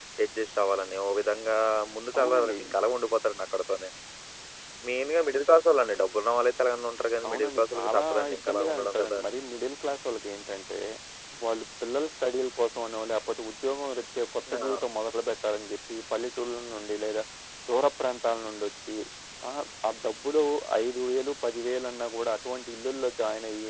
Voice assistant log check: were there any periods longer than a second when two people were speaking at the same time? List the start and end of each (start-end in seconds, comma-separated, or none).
7.3-9.2